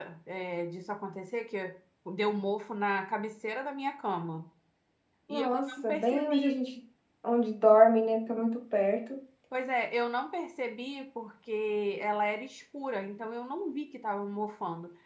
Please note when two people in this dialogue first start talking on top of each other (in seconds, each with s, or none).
5.3 s